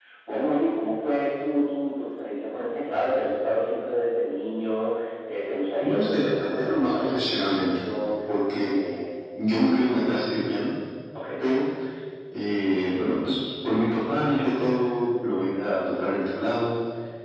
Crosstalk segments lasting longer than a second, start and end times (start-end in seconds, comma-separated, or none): 5.8-7.7